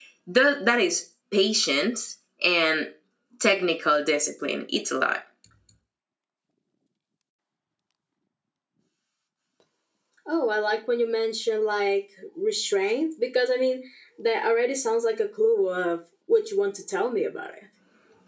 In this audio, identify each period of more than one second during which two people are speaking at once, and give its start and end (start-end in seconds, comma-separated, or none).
none